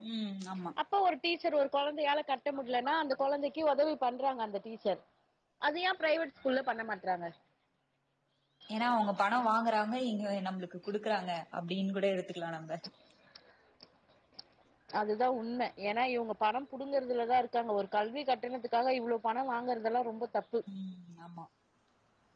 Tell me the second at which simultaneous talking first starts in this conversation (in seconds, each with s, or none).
none